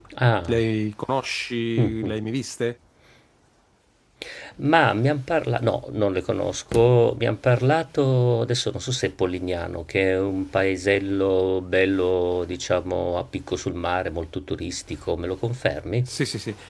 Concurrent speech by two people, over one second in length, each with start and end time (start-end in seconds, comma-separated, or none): none